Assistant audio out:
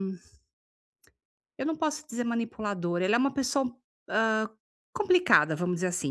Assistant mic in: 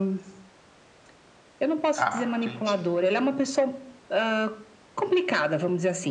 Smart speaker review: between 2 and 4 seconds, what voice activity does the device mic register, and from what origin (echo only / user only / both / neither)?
both